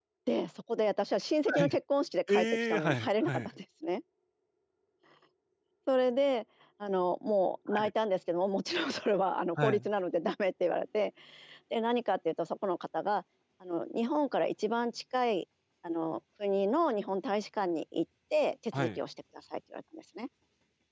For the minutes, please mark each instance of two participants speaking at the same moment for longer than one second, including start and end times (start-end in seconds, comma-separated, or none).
2.3-3.5